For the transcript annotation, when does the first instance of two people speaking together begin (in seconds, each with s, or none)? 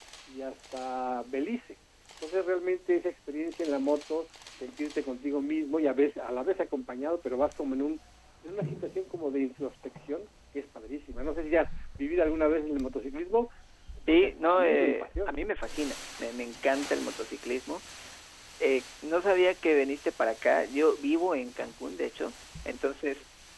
14.1 s